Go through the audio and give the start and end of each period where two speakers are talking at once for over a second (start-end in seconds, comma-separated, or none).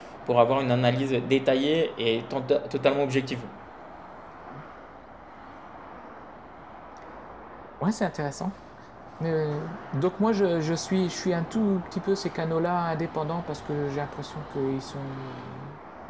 none